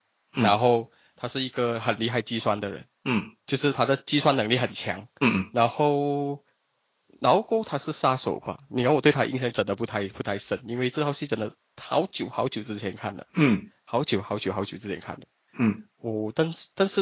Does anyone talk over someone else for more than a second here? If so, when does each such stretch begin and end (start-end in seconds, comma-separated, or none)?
none